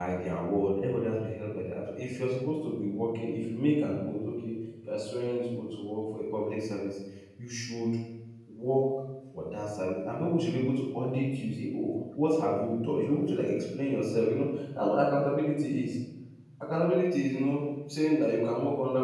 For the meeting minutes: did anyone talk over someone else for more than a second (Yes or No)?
No